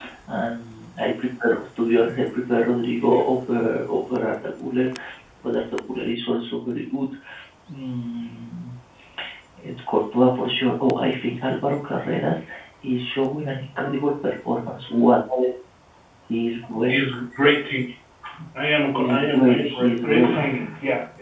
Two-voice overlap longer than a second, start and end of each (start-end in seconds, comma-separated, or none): 18.9-20.4